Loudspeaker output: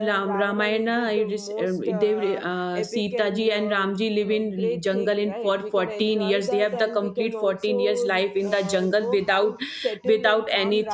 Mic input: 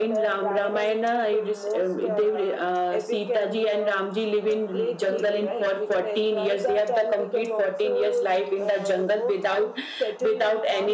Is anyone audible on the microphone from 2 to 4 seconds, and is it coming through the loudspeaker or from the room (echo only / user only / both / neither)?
echo only